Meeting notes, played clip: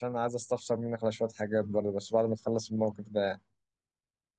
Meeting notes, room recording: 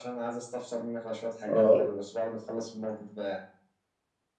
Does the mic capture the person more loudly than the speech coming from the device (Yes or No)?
Yes